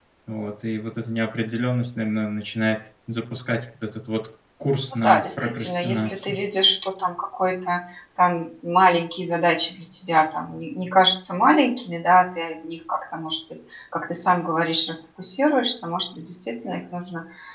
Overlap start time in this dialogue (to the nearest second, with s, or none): 5 s